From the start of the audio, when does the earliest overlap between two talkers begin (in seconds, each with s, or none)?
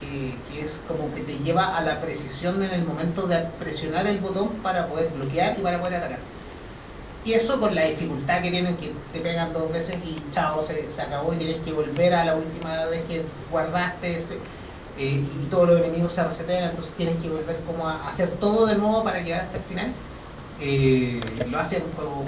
none